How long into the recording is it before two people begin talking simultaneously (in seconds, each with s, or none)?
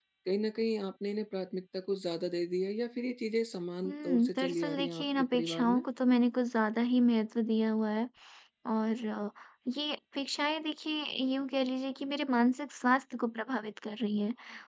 3.8 s